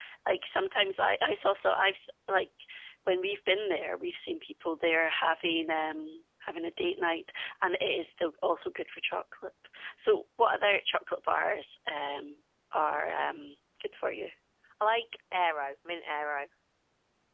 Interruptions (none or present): none